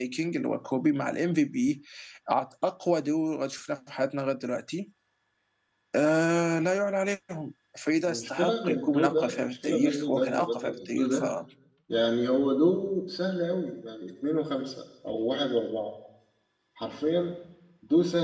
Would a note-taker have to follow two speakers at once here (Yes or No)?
Yes